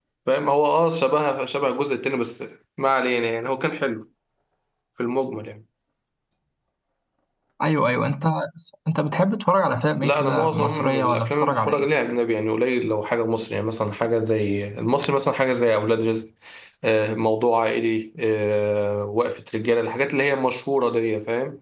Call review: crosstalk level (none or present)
present